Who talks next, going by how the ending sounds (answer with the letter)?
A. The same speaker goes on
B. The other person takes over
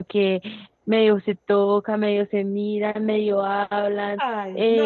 B